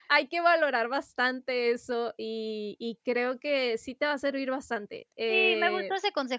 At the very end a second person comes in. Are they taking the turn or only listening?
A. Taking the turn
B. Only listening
A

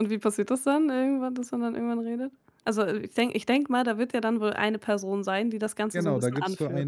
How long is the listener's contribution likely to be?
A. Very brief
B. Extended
B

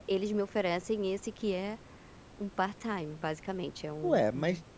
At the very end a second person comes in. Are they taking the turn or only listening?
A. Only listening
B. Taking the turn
B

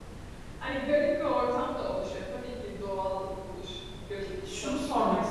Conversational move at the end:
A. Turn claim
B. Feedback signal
A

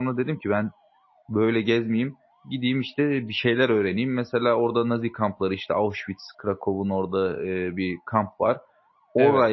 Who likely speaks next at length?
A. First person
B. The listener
A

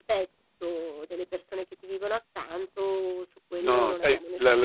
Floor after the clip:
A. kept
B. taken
B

